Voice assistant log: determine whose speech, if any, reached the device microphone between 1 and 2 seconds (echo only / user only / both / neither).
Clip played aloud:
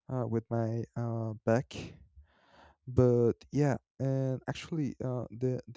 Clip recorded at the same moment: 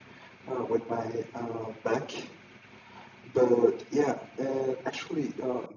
echo only